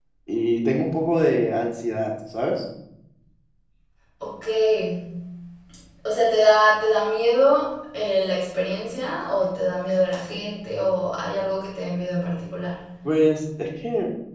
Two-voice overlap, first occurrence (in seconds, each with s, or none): none